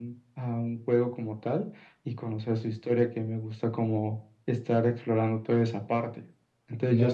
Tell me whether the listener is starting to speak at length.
Yes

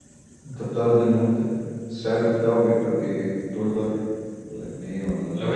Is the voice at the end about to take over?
Yes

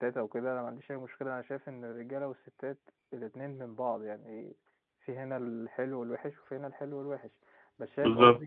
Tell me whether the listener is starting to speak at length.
No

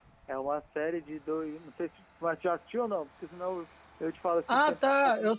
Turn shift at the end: Yes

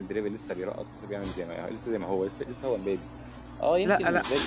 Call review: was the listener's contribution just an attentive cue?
Yes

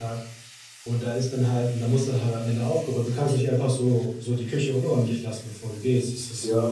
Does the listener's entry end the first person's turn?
Yes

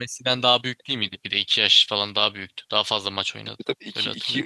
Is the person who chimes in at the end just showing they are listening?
No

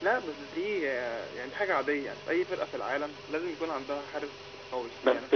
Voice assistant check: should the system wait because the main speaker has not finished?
No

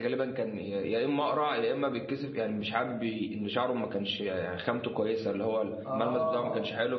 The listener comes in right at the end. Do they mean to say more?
No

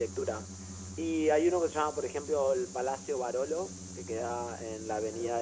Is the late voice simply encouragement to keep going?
Yes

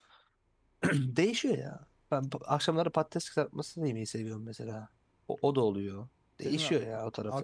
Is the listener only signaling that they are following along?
No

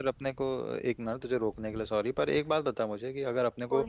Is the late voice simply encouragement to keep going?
Yes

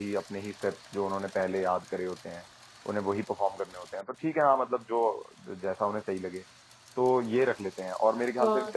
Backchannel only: Yes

